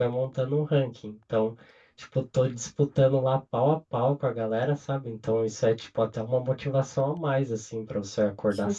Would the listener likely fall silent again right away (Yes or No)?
Yes